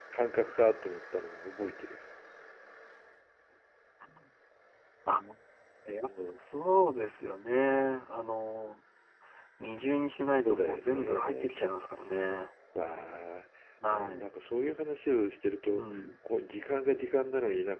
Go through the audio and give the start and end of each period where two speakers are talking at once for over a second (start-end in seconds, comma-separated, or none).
10.4-11.7